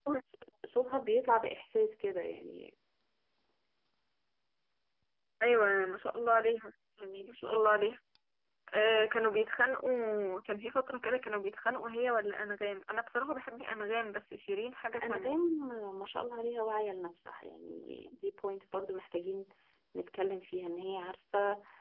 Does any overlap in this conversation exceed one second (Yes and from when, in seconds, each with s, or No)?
No